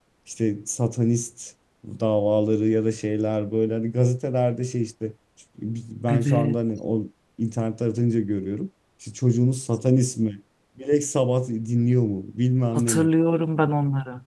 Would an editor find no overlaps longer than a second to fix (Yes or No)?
Yes